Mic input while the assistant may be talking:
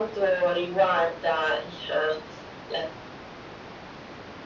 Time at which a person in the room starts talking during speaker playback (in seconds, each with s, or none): none